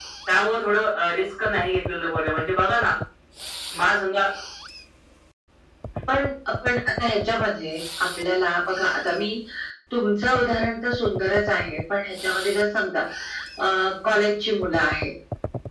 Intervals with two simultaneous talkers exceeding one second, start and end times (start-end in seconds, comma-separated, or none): none